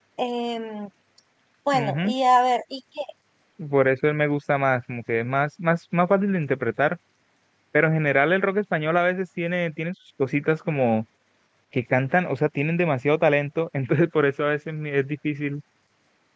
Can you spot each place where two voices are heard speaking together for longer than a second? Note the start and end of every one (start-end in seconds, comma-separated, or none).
none